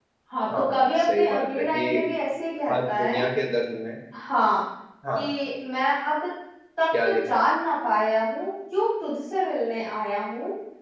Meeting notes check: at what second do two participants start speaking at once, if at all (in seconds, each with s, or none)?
0.6 s